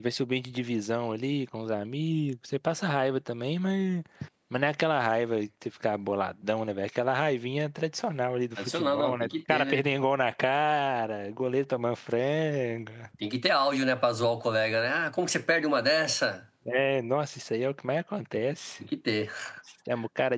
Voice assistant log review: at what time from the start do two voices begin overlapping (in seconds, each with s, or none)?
8.6 s